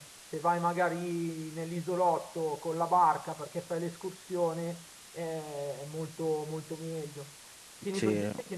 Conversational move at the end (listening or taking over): listening